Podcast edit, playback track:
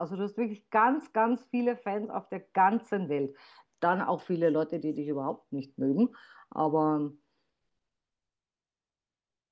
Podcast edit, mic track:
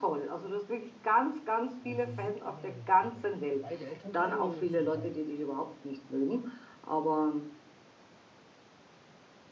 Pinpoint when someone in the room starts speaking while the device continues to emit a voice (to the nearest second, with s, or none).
2 s